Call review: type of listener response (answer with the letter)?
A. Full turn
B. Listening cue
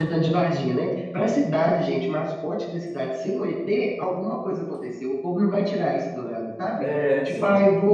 B